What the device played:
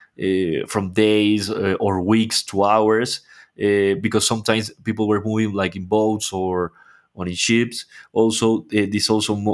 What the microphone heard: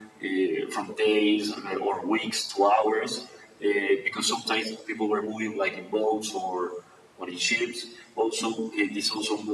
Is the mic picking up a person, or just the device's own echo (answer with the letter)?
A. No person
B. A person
A